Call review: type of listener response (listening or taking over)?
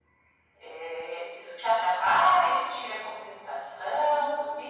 taking over